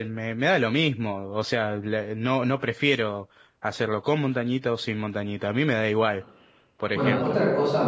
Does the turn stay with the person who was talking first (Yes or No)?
No